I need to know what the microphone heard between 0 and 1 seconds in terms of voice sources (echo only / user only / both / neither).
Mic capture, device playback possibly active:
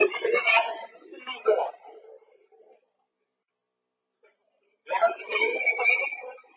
echo only